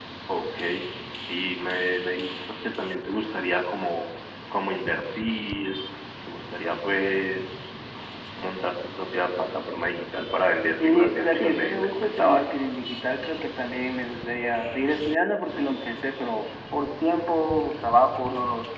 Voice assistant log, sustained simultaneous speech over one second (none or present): present